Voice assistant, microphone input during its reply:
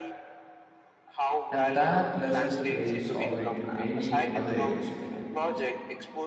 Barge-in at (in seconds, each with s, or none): 1.5 s